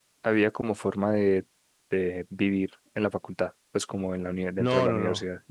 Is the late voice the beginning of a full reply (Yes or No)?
Yes